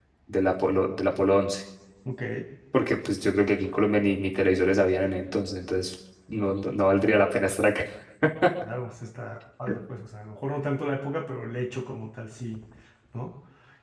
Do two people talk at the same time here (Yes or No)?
No